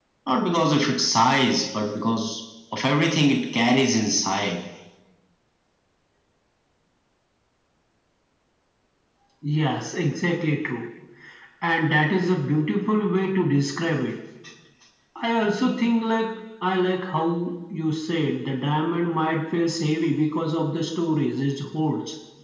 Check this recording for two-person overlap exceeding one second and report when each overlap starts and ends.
none

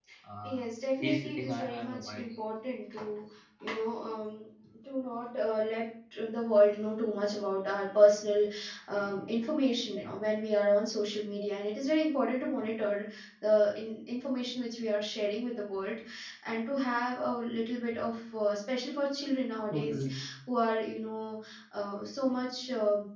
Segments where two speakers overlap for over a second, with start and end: 1.0-2.2

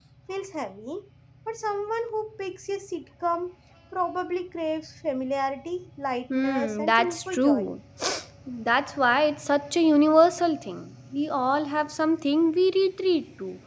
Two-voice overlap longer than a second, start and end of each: 6.3-7.7

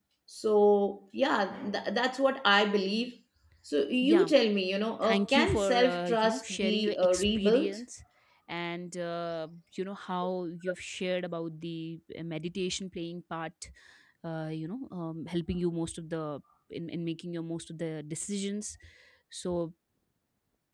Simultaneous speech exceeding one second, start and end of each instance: 5.0-7.8

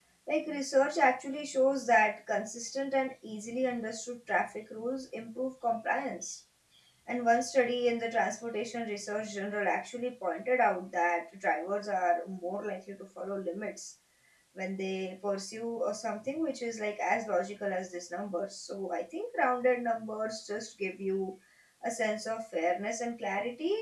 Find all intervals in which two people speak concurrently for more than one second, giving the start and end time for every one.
none

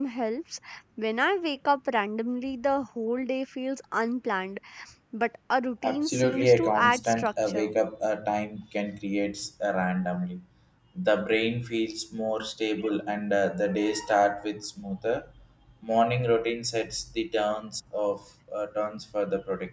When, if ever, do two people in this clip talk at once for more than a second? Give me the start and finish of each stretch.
5.8-7.7

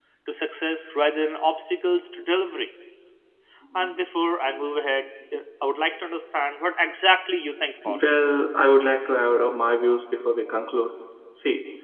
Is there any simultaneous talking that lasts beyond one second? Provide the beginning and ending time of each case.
none

